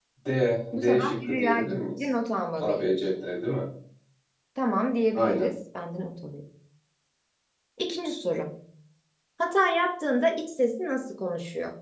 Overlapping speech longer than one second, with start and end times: 0.7-2.0

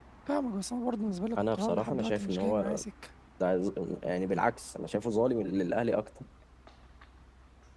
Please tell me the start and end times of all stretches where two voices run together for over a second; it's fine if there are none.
1.5-2.8

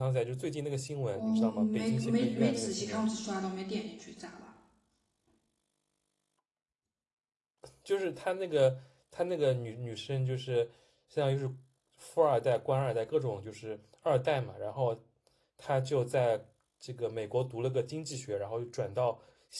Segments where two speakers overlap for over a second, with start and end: 1.1-3.1

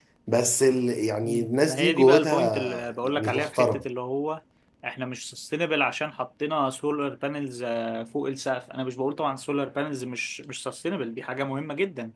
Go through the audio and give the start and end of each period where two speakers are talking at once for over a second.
1.2-3.8

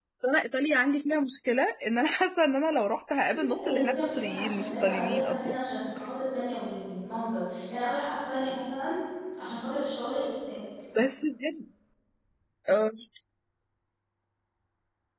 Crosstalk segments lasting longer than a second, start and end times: 3.3-5.6

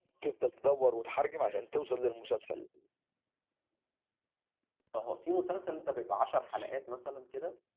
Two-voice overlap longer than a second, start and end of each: none

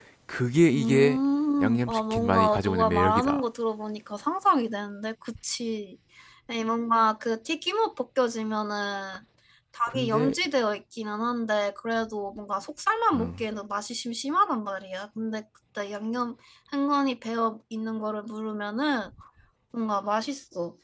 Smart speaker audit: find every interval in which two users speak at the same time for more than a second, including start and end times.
1.6-3.5

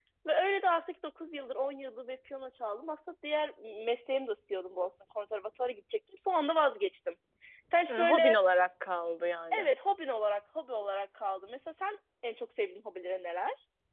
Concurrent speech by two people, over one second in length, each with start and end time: none

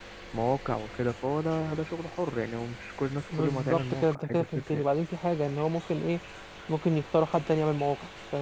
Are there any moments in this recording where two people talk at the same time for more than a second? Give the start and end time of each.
3.3-4.8

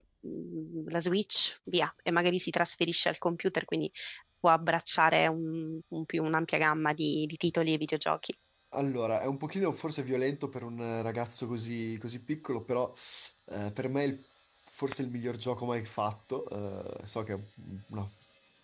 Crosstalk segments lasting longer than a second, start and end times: none

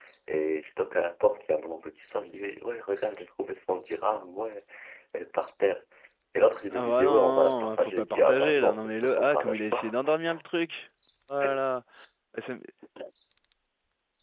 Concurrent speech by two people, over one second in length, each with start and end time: 6.7-9.9

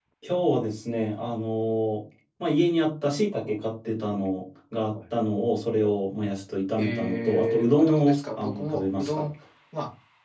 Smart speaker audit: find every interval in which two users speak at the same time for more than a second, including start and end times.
6.8-9.2

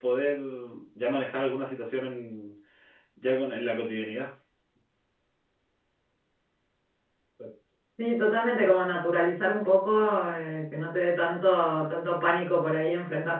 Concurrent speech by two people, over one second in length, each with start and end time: none

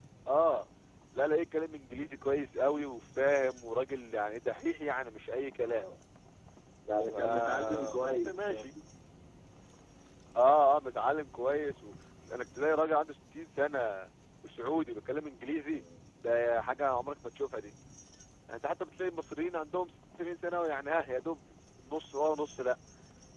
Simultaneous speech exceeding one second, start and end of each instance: 7.1-8.7

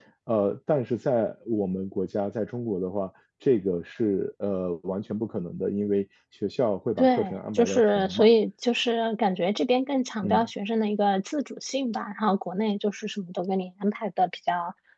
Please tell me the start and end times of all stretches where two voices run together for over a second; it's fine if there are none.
7.0-8.3

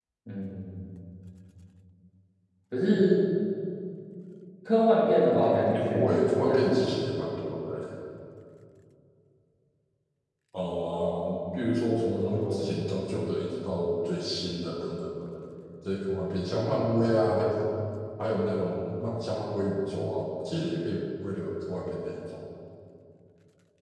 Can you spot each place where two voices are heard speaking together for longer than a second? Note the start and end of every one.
5.3-6.9

